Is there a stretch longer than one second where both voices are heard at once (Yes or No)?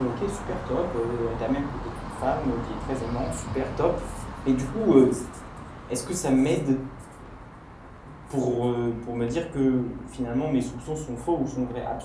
No